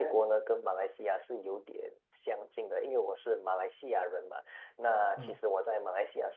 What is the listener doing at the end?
listening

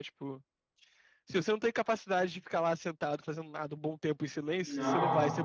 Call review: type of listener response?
taking over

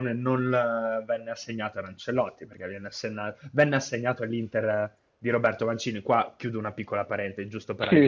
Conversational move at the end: taking over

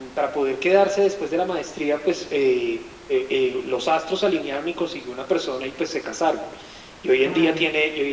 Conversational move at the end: listening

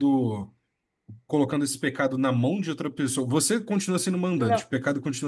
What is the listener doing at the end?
listening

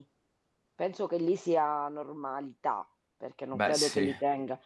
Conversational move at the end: listening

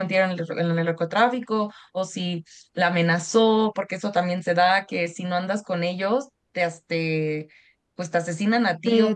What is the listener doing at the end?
taking over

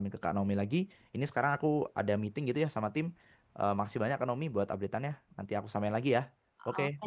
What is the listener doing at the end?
taking over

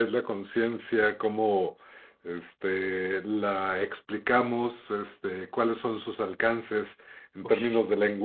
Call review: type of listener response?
listening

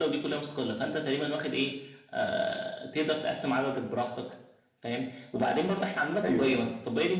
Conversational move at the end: listening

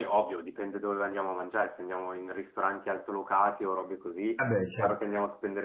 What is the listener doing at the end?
listening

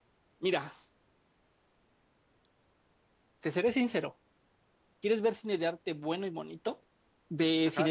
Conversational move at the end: listening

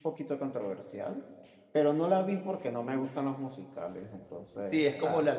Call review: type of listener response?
taking over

